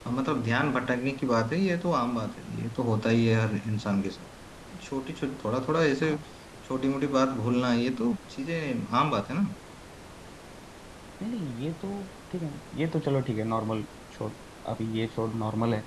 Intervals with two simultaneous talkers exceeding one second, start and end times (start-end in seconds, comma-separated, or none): none